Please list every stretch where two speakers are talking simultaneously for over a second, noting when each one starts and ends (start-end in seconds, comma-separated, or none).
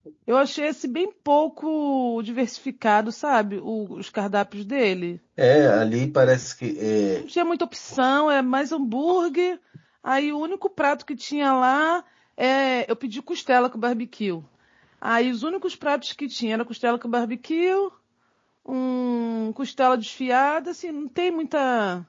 none